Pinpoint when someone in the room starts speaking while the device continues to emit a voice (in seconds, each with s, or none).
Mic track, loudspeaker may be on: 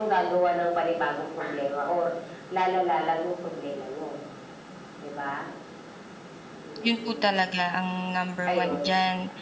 6.8 s